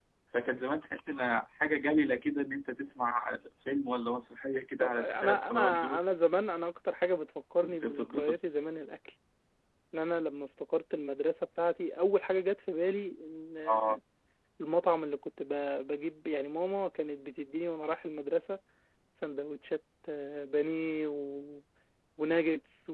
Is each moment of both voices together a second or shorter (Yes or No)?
No